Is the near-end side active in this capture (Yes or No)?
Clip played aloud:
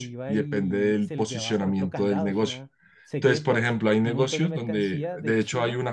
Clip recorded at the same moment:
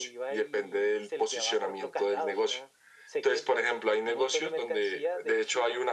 No